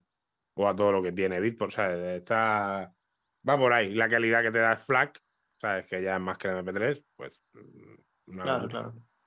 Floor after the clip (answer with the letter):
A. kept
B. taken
B